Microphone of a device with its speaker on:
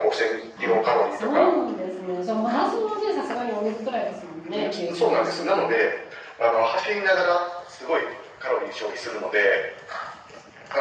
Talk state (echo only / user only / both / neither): both